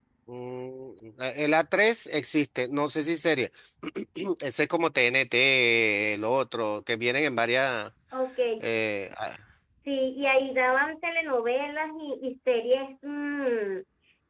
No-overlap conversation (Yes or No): Yes